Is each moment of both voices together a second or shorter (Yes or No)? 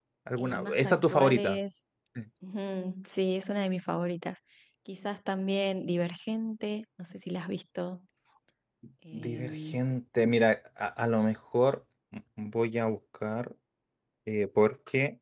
No